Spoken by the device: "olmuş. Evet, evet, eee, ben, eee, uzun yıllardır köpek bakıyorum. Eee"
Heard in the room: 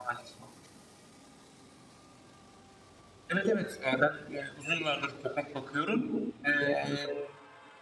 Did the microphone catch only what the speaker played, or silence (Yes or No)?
Yes